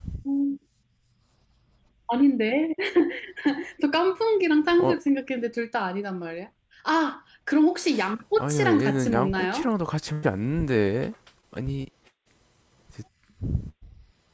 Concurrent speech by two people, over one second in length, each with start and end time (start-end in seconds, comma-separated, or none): 8.4-9.7